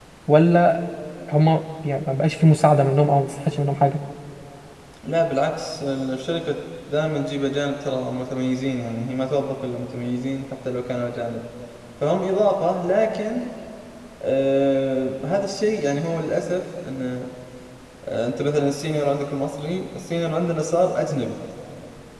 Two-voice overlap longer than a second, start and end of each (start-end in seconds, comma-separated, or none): none